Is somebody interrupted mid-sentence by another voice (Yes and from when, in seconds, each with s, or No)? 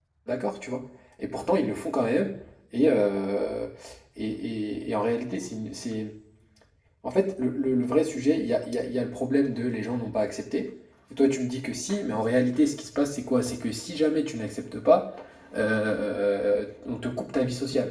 No